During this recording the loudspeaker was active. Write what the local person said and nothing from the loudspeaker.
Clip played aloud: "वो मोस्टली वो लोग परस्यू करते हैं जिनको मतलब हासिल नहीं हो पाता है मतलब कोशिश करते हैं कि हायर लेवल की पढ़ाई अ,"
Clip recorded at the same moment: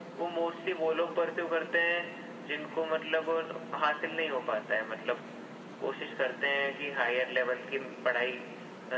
none

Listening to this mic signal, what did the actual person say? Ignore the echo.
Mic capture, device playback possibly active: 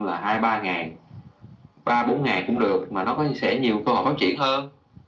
none

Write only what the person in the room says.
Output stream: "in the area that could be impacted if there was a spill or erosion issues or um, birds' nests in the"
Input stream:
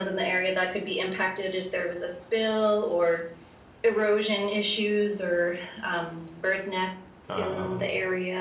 Um,

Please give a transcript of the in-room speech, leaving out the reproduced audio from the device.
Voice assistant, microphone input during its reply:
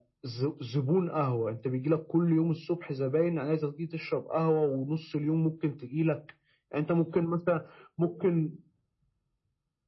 none

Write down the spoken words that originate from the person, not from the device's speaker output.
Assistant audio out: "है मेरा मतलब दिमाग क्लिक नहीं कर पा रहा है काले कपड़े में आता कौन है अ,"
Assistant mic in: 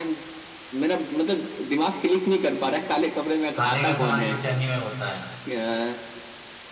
खाने का सामान किचन ही में होता है

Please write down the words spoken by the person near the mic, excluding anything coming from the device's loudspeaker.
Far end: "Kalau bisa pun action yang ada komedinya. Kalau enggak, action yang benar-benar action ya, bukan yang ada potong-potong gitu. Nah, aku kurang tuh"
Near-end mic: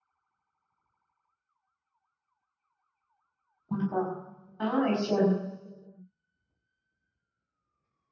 mm. Oh, Action.

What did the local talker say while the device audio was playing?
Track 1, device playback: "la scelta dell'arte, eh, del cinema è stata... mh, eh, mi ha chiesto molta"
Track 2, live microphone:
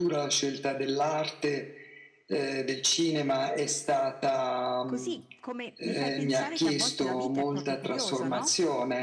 Così come mi fai pensare che a volte la vita è proprio curiosa, no?

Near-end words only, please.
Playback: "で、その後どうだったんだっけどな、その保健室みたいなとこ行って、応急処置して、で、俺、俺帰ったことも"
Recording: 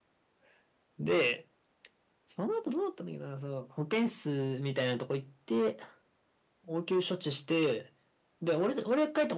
none

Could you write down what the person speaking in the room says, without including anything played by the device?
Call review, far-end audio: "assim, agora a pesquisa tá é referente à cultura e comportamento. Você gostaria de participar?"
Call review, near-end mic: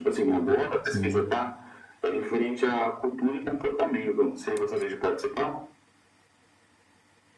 sim,

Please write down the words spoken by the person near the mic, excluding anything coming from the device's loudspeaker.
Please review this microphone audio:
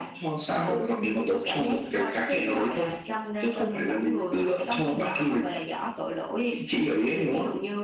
none

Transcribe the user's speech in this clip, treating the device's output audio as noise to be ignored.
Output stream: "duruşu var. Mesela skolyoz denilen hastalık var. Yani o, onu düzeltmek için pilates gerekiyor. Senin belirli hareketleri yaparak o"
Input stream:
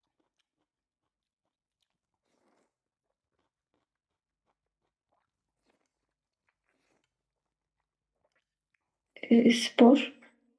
e, spor.

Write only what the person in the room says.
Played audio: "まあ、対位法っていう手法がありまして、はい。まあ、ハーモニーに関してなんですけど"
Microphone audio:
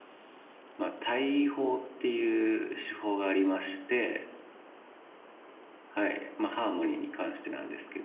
none

